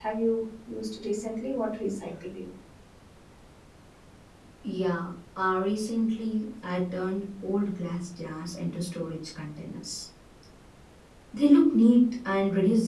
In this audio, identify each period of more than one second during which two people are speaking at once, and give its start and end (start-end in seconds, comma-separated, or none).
none